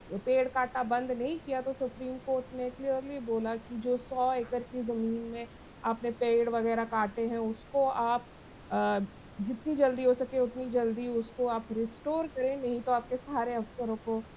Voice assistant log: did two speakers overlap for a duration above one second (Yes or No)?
No